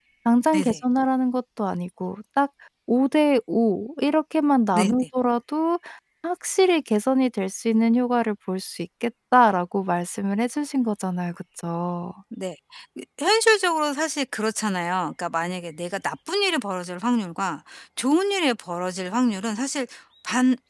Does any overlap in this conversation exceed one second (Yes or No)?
No